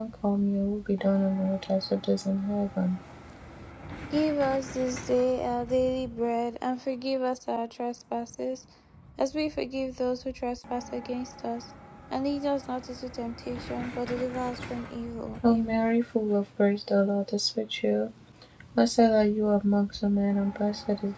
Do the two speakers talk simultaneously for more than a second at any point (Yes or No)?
No